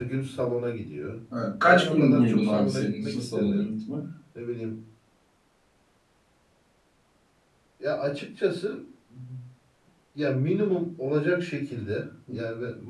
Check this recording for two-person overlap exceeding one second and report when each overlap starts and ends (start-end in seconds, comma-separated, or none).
1.6-3.7